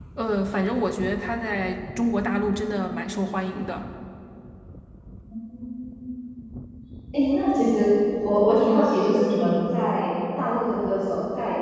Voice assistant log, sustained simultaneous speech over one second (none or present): none